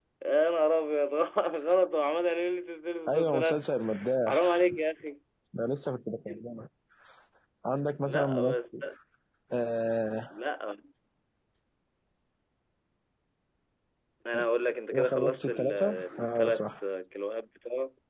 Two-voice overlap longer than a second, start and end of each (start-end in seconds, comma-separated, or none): 14.9-16.6